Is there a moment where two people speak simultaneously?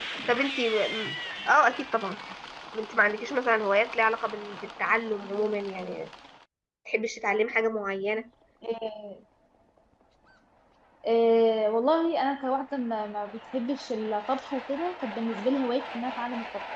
No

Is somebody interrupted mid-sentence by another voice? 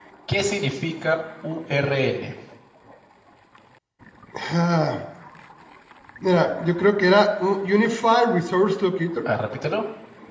No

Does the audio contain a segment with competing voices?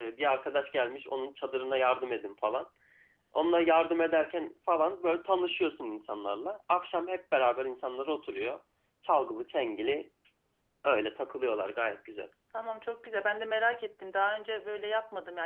No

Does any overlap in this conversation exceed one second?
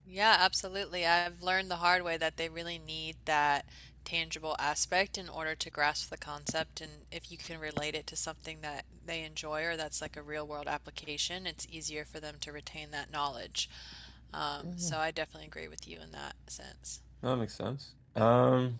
No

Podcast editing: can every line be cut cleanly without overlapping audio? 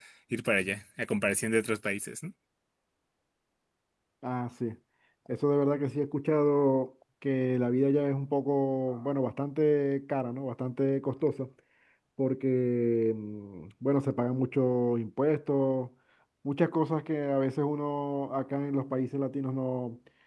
Yes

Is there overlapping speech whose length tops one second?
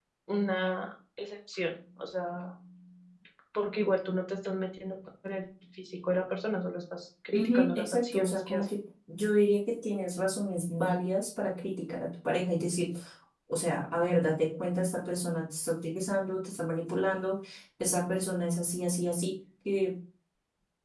Yes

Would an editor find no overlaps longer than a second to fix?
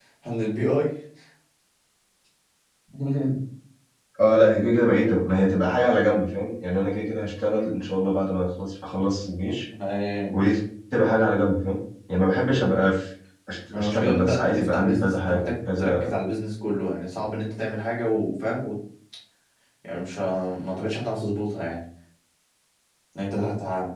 No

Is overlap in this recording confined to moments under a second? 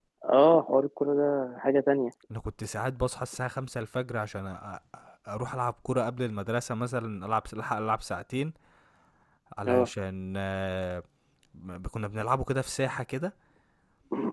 Yes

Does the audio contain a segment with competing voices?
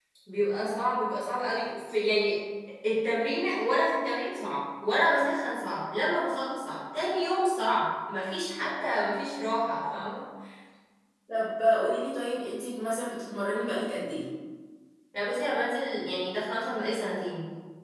No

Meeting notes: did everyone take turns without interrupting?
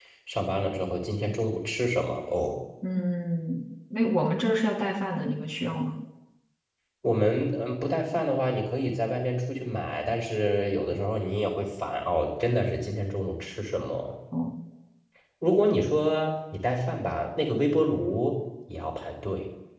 Yes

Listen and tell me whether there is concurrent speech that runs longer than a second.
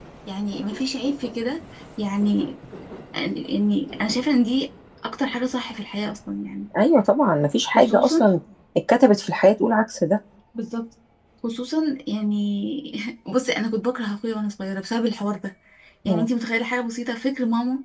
No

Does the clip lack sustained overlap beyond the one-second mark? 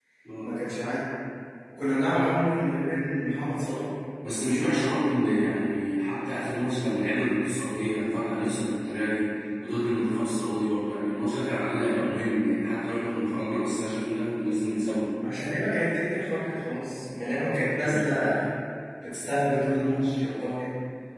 Yes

